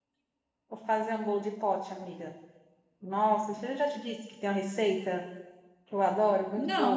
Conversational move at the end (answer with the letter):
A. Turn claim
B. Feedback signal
A